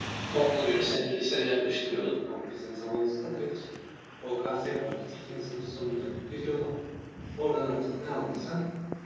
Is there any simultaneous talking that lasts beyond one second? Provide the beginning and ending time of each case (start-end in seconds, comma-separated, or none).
none